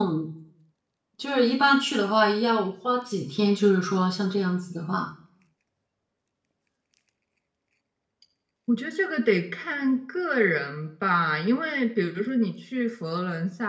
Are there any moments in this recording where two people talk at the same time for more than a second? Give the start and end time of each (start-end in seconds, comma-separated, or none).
none